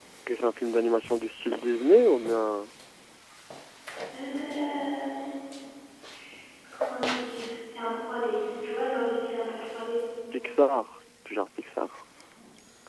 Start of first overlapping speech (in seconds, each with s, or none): none